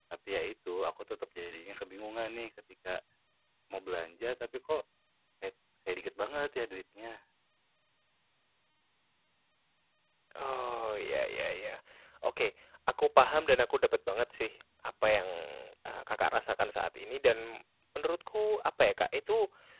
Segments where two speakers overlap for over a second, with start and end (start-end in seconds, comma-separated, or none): none